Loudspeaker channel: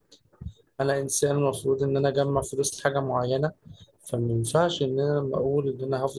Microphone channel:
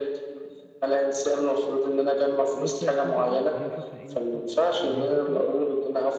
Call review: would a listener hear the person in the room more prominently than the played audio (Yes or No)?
No